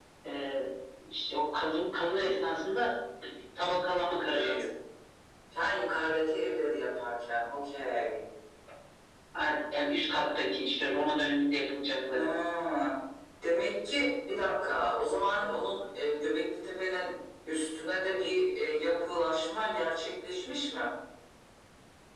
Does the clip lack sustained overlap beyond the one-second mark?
Yes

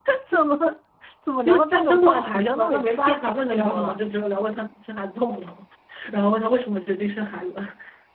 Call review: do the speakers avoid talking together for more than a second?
No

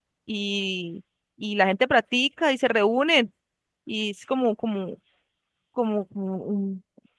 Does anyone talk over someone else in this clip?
No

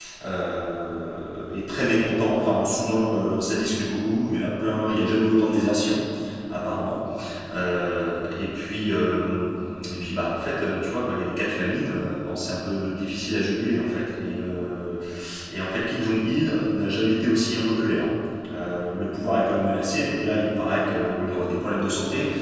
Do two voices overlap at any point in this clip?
No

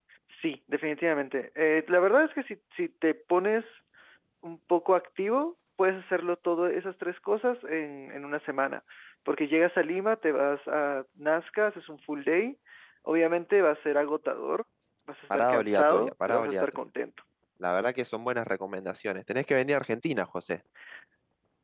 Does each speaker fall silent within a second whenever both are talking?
No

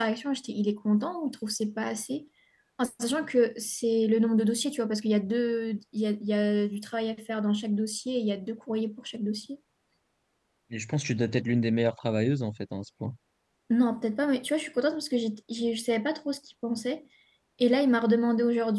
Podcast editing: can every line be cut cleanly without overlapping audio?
Yes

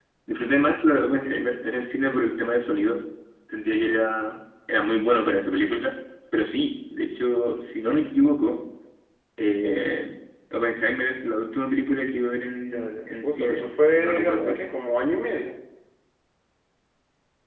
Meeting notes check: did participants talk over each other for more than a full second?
Yes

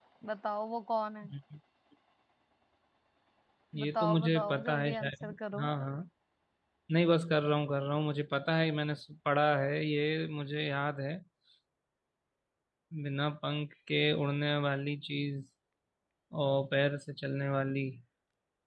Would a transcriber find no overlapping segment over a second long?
No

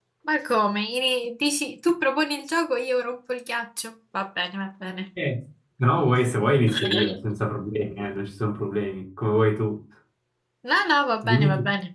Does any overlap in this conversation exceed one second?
No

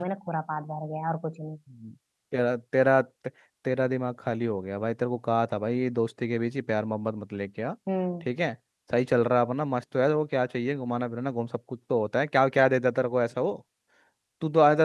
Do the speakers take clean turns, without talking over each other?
Yes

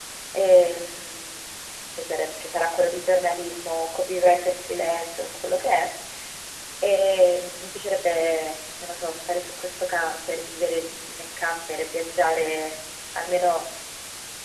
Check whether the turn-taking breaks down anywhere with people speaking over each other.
No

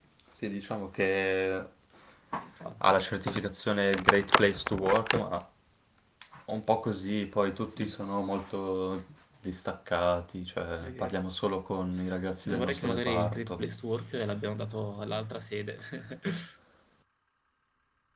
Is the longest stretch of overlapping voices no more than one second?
No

